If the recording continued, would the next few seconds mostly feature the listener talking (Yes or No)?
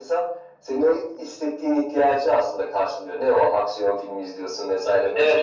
Yes